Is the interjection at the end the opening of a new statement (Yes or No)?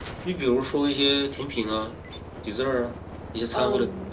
Yes